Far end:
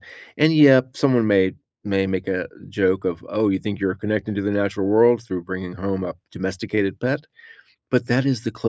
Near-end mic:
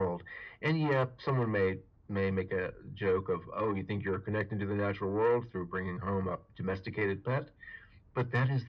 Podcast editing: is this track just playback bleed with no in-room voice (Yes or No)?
Yes